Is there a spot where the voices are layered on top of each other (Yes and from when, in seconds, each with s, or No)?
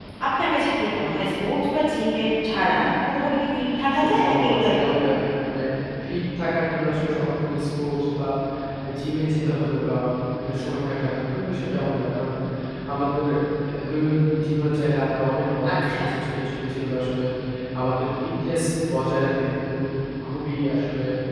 Yes, from 3.9 s